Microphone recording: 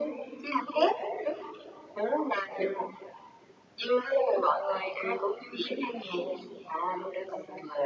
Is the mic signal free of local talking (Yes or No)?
Yes